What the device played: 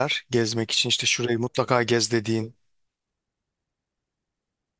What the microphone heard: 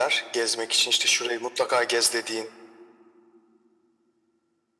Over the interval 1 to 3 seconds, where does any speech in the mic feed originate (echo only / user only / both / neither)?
echo only